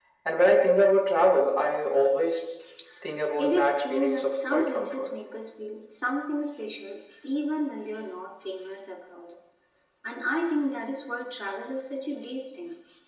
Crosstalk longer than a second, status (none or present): present